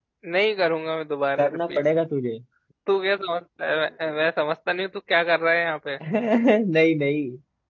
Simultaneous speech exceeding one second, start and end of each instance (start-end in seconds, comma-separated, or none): none